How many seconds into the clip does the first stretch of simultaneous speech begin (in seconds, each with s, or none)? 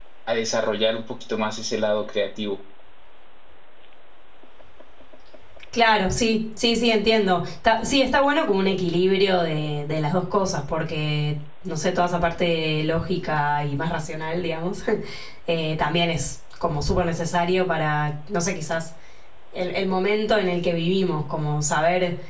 none